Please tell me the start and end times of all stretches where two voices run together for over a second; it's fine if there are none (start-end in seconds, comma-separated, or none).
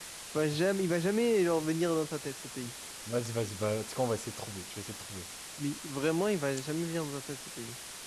none